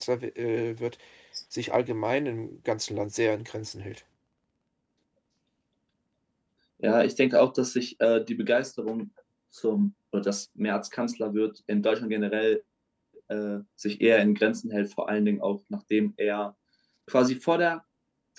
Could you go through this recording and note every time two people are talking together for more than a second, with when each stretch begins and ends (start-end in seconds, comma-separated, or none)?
none